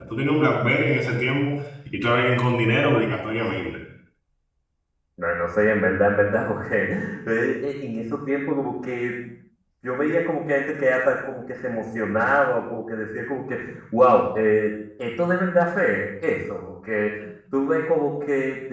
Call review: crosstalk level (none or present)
none